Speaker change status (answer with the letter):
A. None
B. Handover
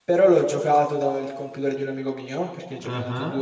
A